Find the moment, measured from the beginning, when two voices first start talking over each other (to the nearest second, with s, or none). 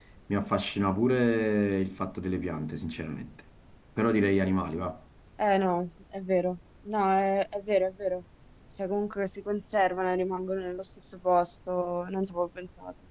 none